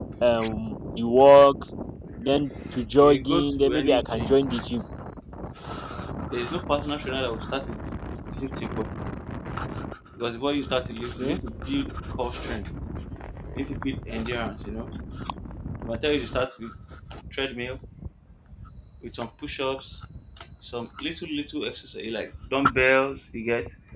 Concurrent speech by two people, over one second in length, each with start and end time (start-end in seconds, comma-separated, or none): 2.8-4.3